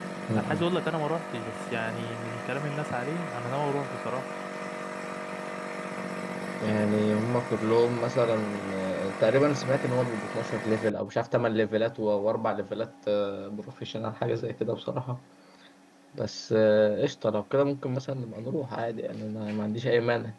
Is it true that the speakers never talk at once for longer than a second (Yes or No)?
Yes